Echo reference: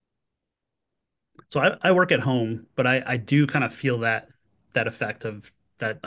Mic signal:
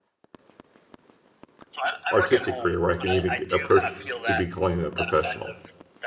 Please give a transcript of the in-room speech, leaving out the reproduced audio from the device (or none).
artistic career where I can even get- approach to be calling it a professional.